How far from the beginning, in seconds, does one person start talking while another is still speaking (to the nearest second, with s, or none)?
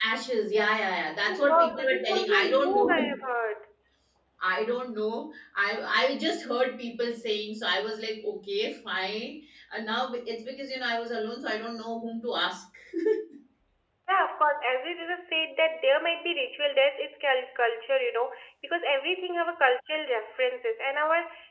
1 s